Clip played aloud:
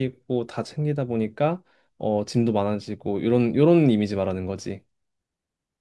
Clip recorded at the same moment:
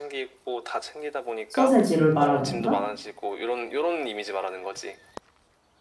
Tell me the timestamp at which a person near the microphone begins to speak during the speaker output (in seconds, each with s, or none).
1.5 s